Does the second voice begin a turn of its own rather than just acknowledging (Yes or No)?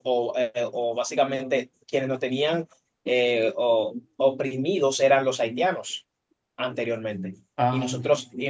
No